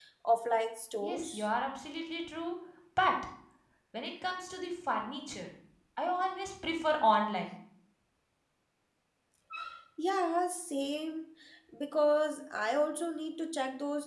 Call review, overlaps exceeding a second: none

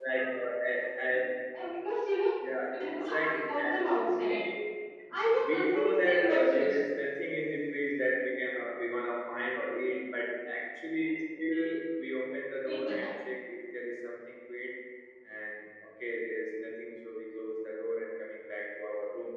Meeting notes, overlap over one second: present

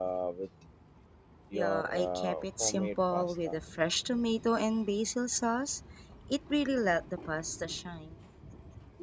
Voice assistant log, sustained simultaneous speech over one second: present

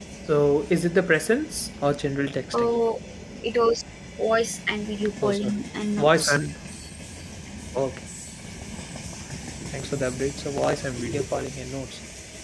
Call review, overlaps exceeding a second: none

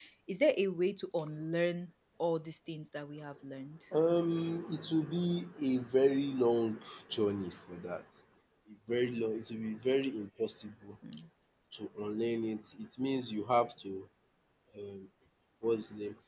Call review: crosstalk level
none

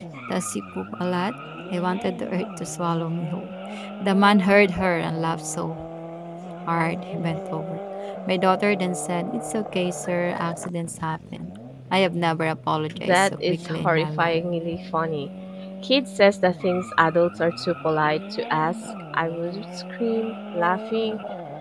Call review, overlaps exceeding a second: present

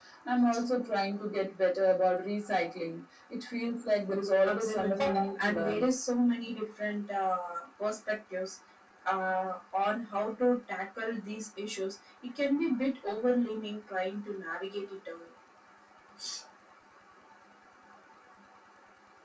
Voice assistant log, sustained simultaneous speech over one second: present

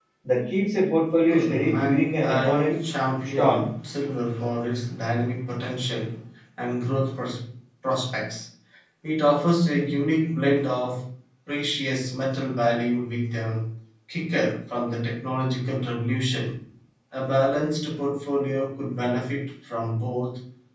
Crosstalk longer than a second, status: present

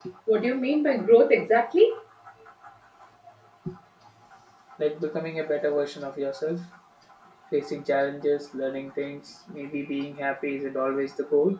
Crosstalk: none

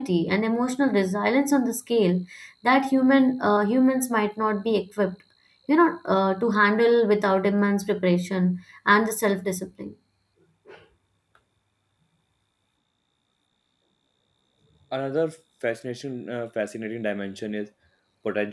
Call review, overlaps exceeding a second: none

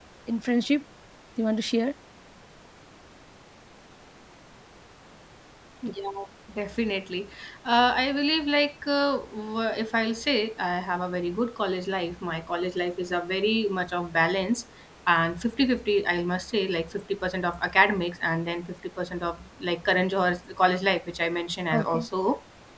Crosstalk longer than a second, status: none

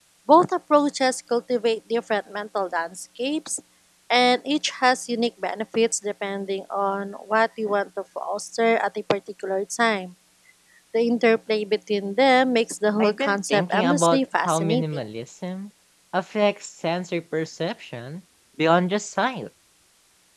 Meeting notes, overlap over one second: present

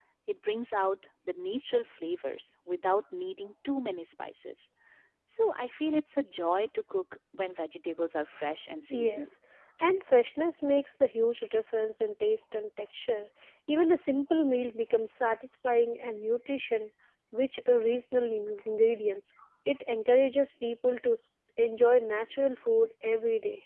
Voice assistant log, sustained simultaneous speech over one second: none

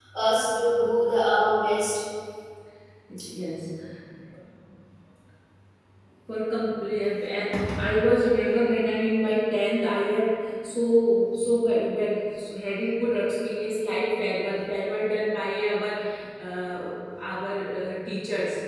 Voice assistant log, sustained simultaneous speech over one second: none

